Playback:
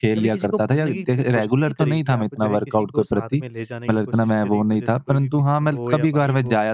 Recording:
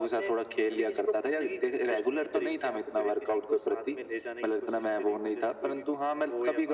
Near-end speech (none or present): none